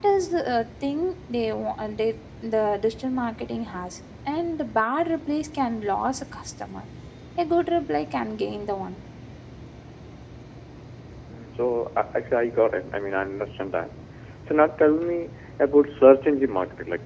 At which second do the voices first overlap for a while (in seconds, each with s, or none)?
none